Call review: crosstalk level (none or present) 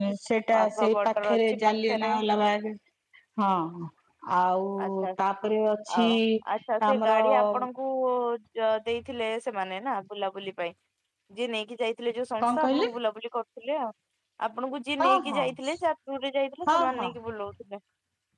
present